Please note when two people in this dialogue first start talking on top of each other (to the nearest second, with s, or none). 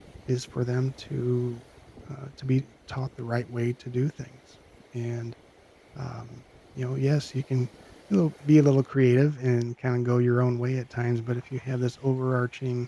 none